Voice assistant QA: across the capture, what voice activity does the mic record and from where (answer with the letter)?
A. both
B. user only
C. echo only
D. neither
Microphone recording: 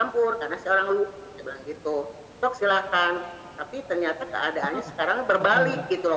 A